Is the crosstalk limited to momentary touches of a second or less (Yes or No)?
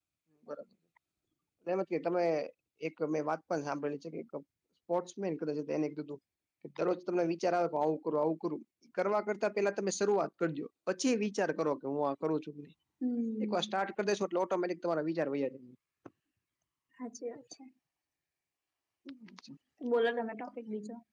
Yes